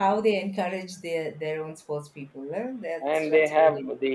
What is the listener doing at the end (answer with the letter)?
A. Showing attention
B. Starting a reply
B